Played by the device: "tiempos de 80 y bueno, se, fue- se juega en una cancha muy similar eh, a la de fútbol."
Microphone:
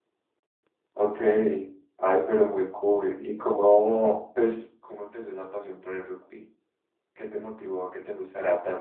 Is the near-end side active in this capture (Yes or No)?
Yes